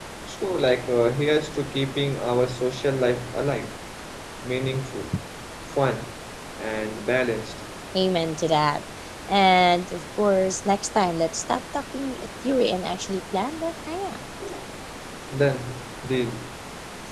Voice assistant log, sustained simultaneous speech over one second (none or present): none